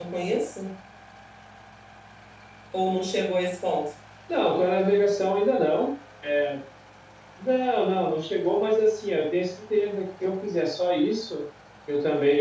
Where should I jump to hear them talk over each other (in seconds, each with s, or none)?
none